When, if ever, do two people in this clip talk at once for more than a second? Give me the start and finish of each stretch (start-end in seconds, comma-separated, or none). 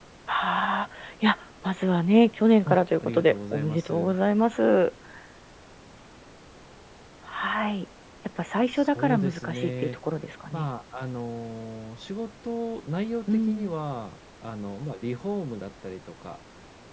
2.7-4.2, 8.7-10.0